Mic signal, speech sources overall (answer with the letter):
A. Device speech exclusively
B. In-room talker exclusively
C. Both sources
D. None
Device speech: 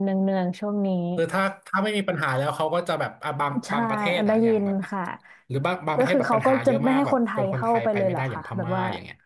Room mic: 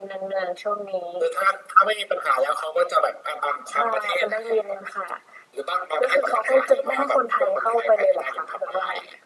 A